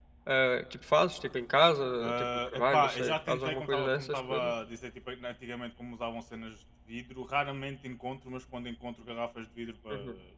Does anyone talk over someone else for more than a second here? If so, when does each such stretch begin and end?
2.0-4.5

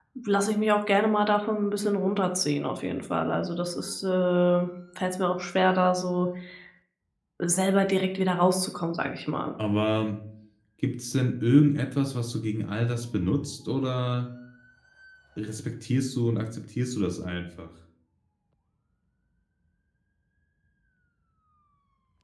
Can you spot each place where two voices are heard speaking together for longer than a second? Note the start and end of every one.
none

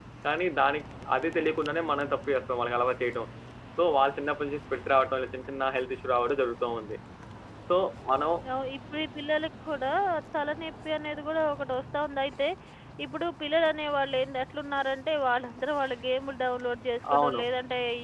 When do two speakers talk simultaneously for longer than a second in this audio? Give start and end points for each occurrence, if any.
none

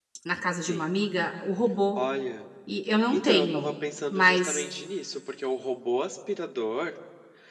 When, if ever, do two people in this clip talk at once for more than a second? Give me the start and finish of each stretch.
none

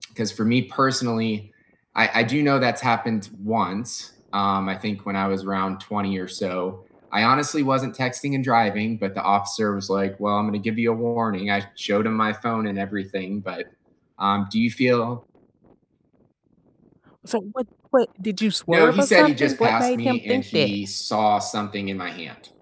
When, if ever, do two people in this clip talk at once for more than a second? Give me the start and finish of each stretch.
18.7-20.8

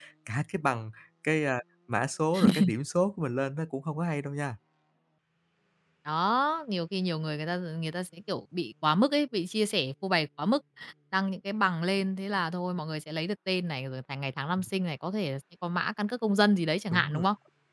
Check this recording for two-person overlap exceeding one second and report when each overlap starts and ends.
none

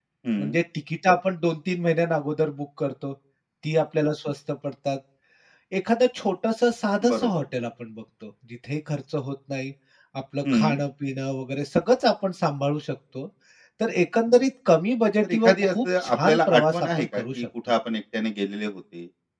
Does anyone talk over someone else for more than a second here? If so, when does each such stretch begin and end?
15.2-17.4

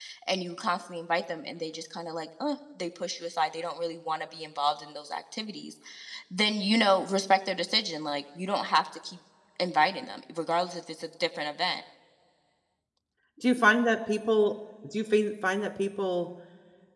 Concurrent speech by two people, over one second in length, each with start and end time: none

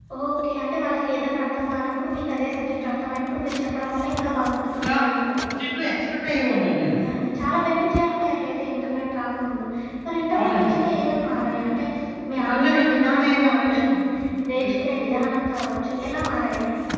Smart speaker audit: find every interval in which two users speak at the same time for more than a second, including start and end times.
12.3-13.8

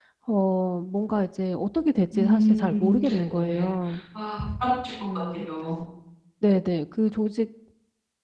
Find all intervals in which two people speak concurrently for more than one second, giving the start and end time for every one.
2.1-3.7

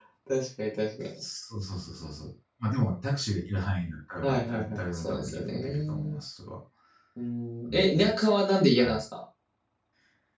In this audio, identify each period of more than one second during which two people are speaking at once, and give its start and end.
4.2-6.2

